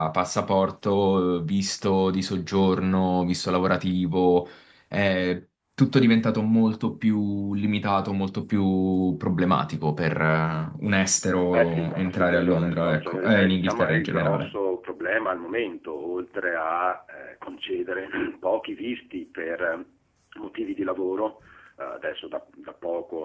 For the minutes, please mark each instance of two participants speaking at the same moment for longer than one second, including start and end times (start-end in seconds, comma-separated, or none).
11.5-14.5